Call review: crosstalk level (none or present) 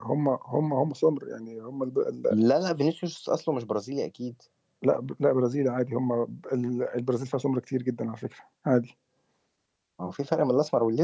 none